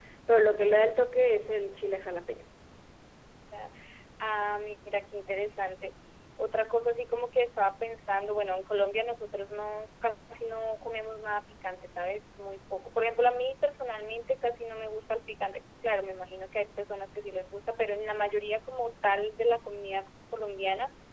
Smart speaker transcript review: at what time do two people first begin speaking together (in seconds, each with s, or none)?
none